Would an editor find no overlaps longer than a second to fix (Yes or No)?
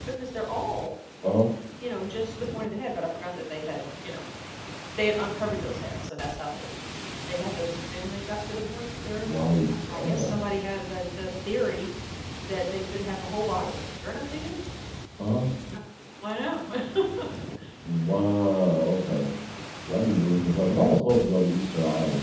Yes